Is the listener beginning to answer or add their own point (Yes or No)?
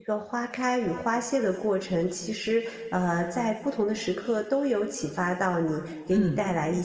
No